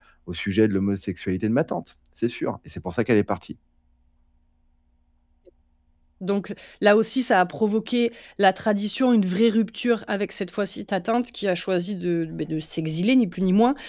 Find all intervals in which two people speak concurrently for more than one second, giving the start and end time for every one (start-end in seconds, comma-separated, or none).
none